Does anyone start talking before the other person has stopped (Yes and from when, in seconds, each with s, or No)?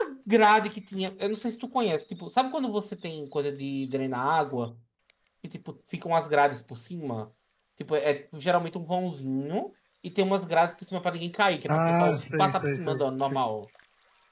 Yes, from 11.7 s